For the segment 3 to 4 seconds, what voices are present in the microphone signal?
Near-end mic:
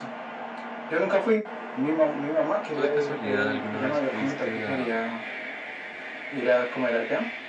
both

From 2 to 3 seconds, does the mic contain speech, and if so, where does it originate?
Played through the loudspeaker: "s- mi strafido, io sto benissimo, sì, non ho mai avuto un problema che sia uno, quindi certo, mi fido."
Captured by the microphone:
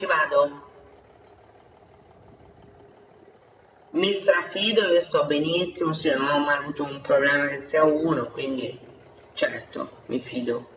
neither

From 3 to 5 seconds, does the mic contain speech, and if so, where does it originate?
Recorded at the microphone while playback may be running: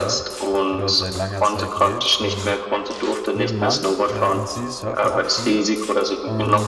both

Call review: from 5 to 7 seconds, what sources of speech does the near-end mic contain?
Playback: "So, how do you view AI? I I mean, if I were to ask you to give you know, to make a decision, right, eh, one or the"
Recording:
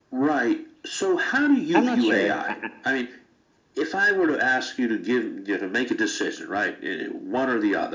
echo only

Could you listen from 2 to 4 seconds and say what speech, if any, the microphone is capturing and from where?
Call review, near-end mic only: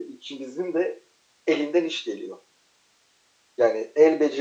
echo only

